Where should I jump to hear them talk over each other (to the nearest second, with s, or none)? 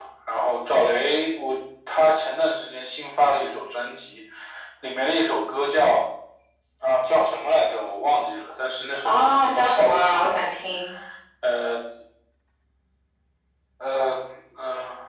9 s